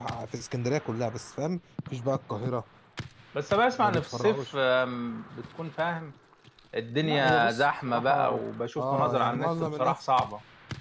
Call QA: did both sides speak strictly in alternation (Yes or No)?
No